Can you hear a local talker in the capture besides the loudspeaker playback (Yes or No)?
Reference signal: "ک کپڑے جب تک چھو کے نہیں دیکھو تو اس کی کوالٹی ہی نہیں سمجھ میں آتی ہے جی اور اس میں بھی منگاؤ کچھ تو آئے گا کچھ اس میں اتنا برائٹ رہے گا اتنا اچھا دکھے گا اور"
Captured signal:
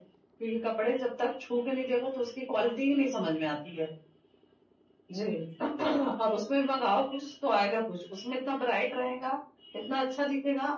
No